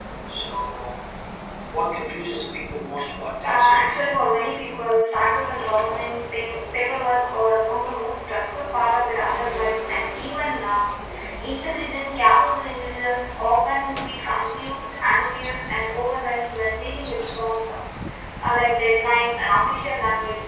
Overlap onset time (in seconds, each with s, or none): 3.4 s